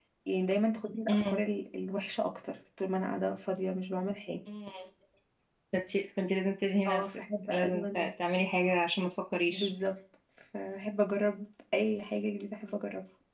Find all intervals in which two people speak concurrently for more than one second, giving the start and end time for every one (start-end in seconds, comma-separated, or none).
6.9-8.1